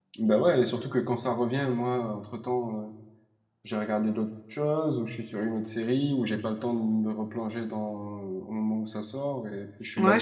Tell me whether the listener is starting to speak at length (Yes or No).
Yes